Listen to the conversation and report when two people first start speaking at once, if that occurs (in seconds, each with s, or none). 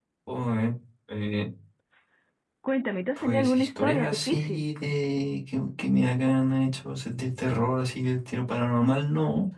3.2 s